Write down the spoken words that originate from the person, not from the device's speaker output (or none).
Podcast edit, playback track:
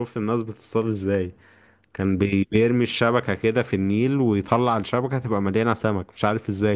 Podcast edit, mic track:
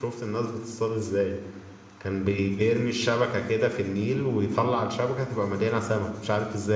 none